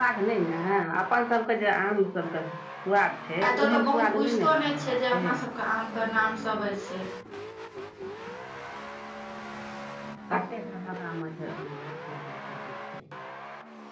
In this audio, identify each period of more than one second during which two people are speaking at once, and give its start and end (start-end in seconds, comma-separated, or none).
3.4-5.3